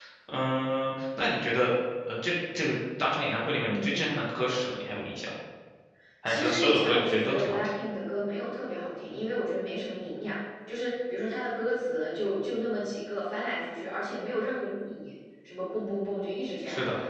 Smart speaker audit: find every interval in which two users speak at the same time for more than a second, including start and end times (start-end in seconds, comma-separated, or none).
6.2-7.8